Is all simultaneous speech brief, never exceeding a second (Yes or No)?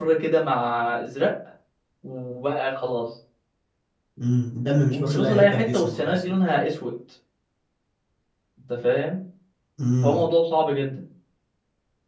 No